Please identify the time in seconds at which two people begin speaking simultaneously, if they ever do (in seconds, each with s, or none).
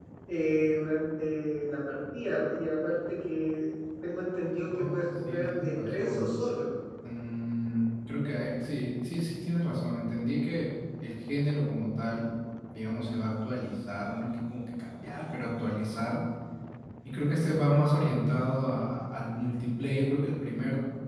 4.7 s